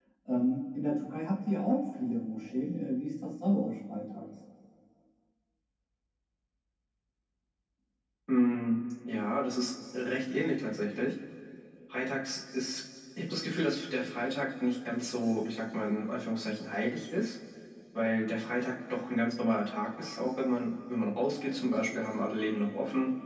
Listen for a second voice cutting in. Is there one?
No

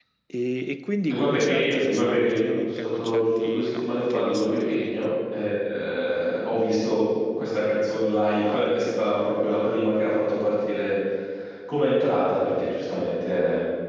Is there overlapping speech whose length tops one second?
Yes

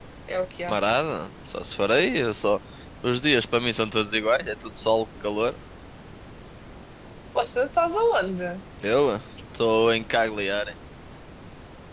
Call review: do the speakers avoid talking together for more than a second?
Yes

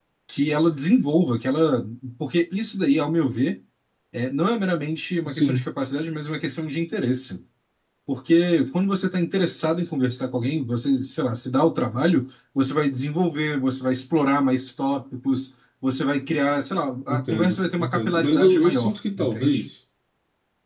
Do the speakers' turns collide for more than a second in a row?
Yes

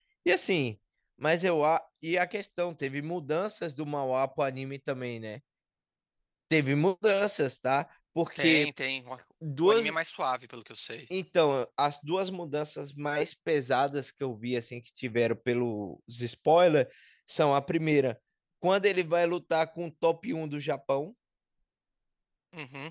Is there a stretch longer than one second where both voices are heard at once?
No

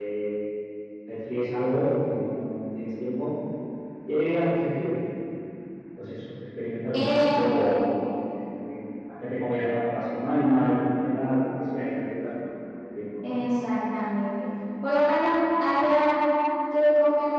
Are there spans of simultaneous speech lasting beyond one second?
No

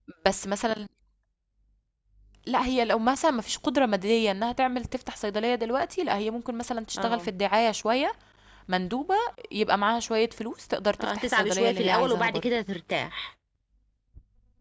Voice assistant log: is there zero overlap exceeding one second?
No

